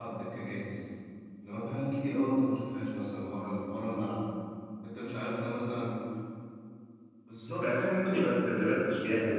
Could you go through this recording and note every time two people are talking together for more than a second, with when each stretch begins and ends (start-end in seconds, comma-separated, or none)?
none